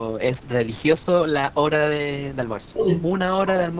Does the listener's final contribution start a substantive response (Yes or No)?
No